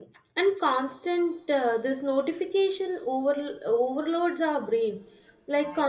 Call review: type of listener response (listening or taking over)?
listening